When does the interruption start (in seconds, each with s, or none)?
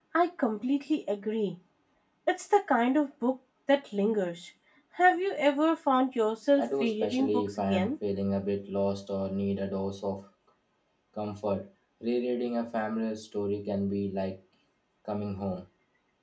6.6 s